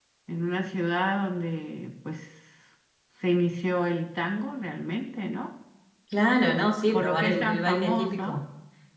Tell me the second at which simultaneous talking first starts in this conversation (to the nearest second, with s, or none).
7 s